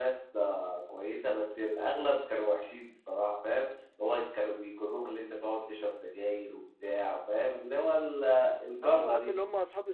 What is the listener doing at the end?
taking over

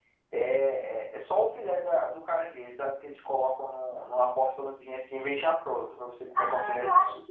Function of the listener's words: taking over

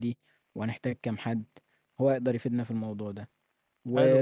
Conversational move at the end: listening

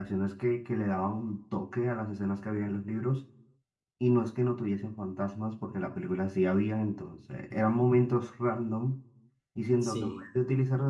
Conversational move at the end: listening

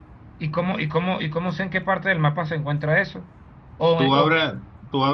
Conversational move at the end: taking over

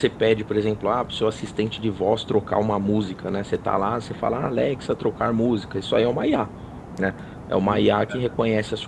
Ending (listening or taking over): listening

